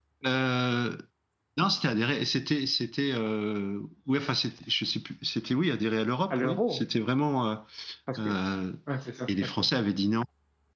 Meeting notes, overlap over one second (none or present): none